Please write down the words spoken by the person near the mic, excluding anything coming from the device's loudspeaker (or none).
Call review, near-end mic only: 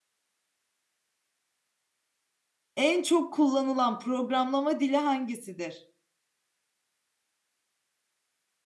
En çok kullanılan programlama dili hangisidir?